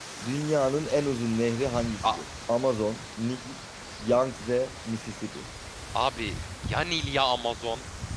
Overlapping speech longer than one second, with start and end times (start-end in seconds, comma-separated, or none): none